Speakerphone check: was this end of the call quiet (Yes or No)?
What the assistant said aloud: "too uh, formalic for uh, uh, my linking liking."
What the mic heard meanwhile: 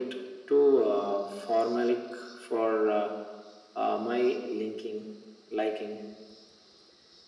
Yes